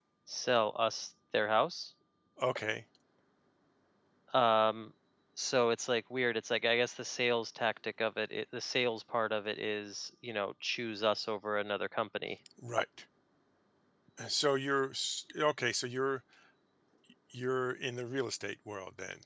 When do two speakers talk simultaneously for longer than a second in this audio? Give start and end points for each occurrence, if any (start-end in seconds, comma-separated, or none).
none